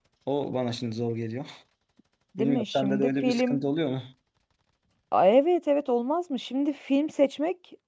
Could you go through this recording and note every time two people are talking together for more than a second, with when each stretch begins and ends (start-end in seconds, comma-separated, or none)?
2.4-3.6